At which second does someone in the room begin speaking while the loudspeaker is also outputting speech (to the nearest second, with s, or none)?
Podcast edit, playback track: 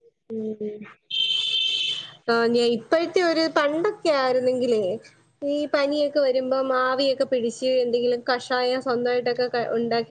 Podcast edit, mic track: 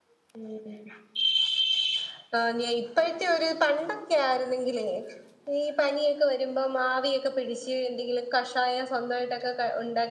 none